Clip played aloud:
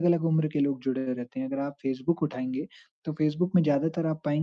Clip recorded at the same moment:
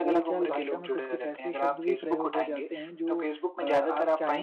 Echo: present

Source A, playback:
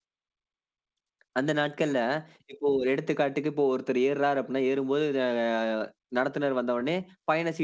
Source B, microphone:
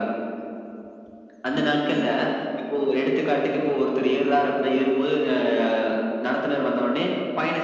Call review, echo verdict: present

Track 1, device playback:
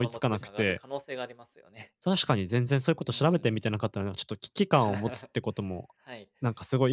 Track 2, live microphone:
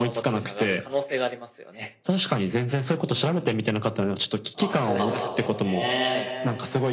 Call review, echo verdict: present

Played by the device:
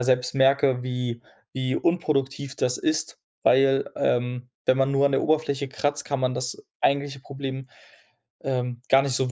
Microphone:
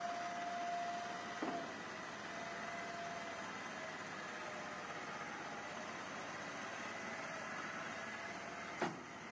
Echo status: none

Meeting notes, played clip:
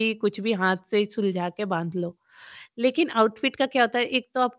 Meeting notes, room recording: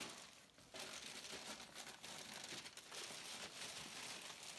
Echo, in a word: none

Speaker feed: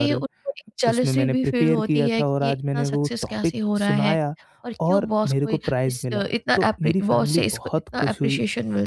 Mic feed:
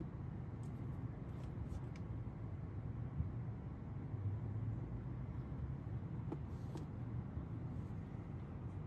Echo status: none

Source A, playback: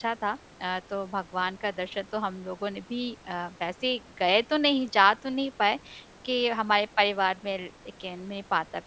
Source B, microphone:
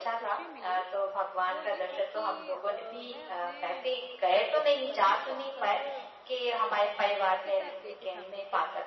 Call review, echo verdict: present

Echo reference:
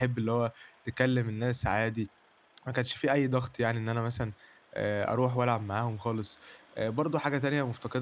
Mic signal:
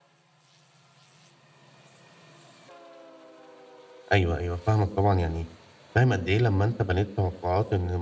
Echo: none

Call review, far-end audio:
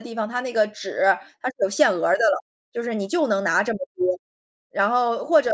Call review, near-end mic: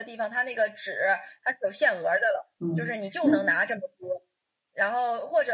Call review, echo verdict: present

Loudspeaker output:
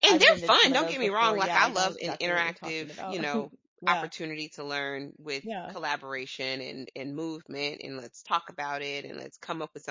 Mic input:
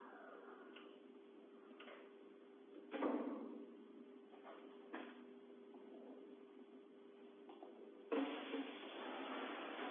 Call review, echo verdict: none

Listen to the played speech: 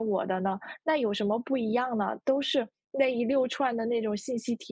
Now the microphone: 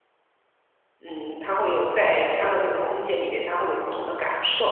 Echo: none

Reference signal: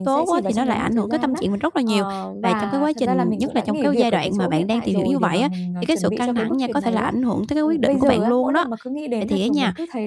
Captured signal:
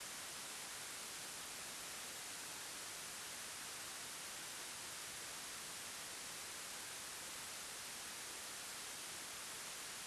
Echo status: none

